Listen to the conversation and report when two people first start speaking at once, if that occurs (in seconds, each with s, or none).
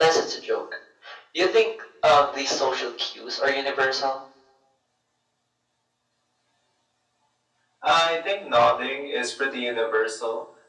none